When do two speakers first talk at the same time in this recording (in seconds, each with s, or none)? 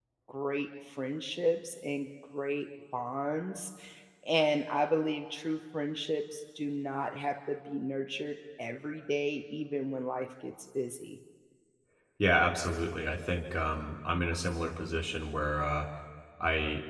none